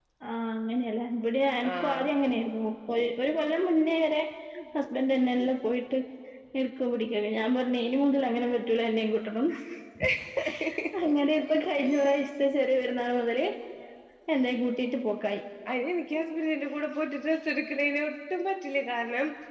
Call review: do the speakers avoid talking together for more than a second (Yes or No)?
Yes